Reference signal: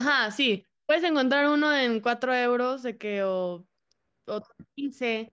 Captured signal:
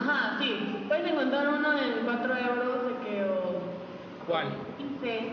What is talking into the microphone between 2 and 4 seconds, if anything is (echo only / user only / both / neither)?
echo only